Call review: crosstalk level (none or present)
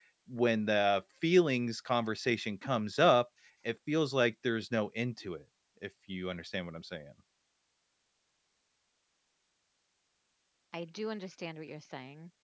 none